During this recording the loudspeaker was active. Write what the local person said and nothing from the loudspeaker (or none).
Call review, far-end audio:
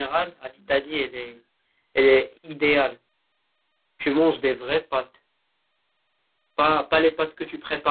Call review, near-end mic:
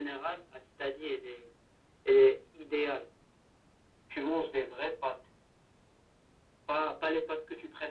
none